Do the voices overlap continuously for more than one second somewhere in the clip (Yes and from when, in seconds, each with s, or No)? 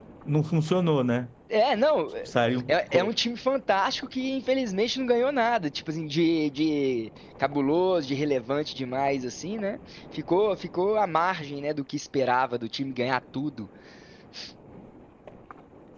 No